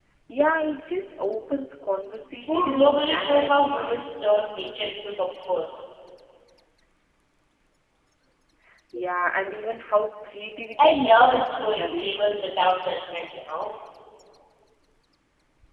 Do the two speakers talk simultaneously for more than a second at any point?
Yes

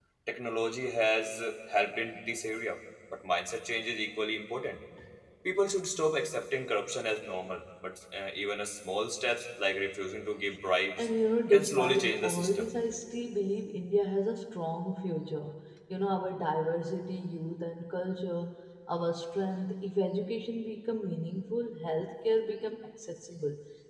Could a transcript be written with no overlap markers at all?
No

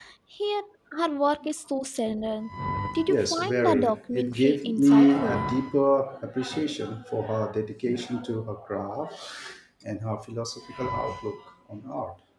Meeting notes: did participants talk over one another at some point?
Yes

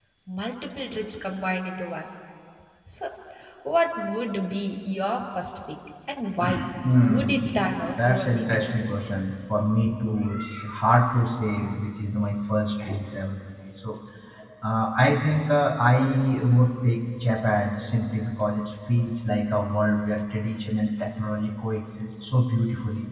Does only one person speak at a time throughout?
No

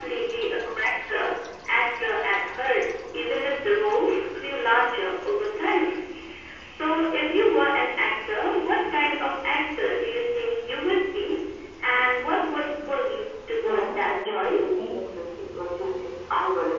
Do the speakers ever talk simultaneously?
Yes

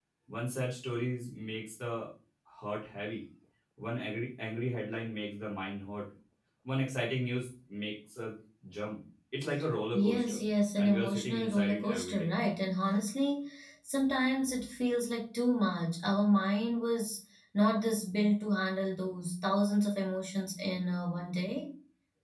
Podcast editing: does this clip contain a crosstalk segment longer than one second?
Yes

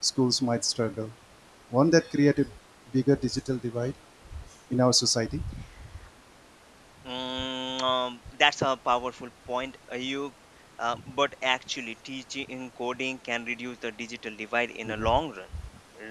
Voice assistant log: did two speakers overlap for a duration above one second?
No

